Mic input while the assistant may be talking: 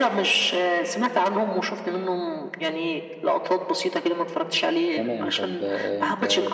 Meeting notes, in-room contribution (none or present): present